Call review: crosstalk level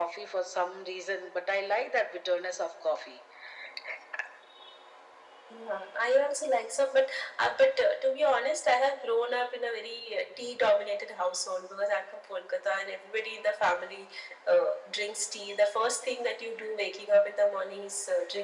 none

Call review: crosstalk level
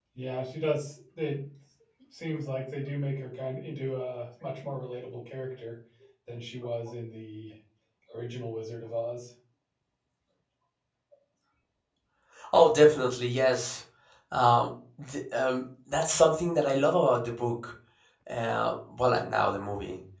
none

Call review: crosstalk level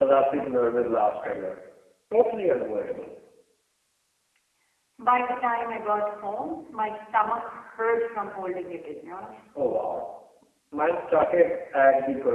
none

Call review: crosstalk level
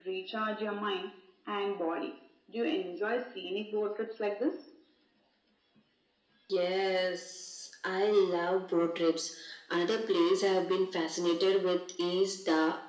none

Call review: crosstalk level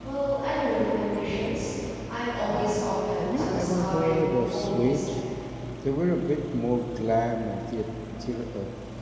present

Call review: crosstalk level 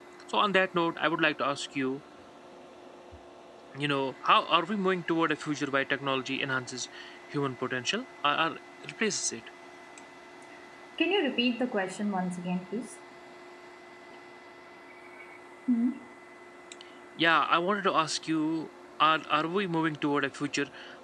none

